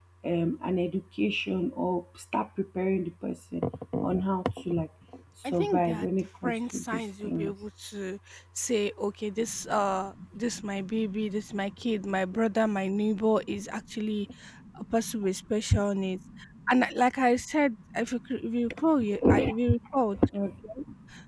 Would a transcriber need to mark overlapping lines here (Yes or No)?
Yes